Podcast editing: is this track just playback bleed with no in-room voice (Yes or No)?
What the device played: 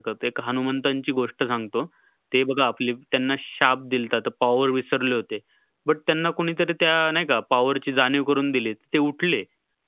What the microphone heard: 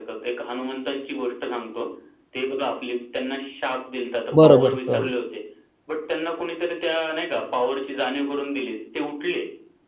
No